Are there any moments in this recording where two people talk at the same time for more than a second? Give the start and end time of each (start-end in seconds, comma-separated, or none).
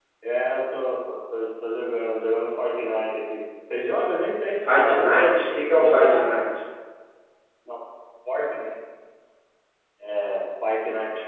4.7-6.3